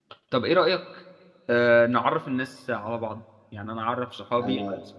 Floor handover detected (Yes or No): No